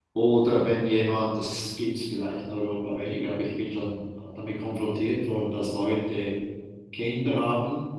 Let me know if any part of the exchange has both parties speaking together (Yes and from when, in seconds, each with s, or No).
No